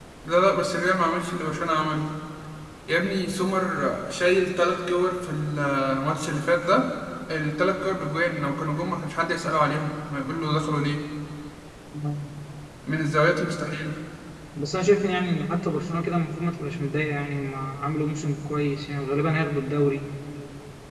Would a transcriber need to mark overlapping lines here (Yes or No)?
No